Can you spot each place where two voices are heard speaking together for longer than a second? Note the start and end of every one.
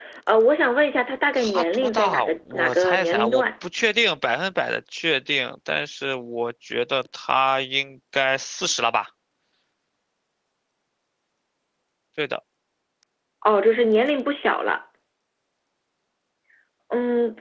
1.4-3.4

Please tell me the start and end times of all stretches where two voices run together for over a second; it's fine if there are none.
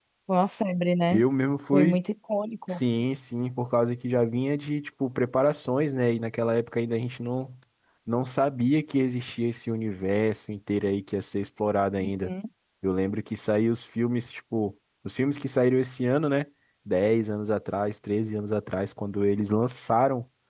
none

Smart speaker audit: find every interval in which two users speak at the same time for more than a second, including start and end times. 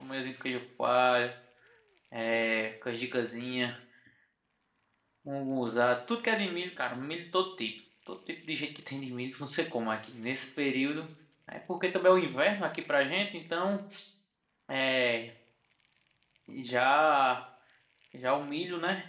none

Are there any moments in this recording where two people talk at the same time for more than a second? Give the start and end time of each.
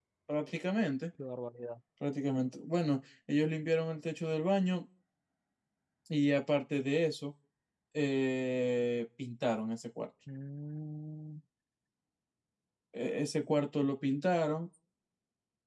none

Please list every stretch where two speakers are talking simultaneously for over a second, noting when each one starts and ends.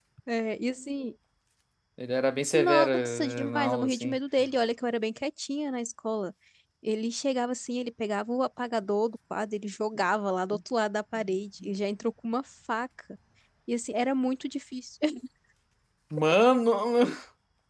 2.5-4.2

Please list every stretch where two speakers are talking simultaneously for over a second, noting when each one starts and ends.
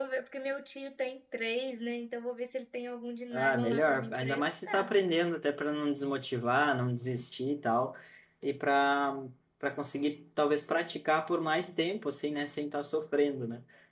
3.3-4.9

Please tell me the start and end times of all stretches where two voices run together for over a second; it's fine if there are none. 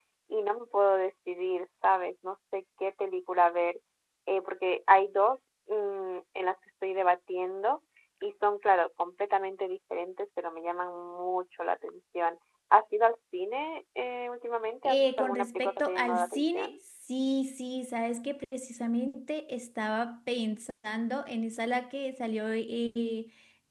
14.9-16.8

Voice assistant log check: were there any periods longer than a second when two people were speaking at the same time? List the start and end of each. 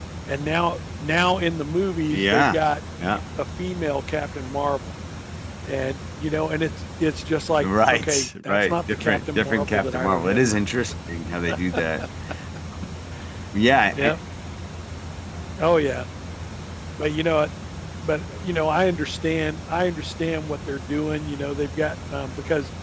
7.6-10.6

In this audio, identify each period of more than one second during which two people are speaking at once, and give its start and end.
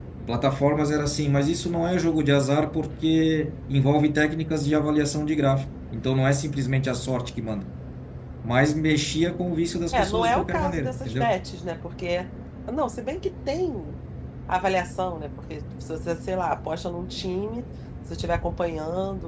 9.9-11.4

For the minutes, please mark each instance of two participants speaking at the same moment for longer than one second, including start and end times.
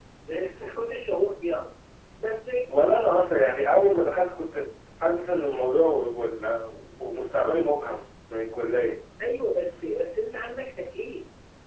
none

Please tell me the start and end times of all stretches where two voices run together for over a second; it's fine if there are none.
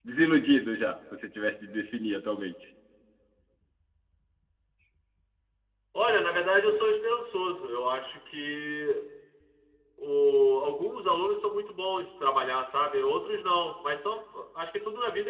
none

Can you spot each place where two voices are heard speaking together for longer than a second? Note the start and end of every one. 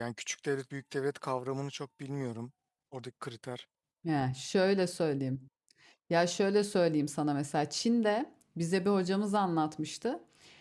none

